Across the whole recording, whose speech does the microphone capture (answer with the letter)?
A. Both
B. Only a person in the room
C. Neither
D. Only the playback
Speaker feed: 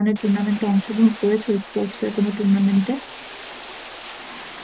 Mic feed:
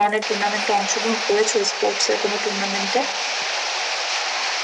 D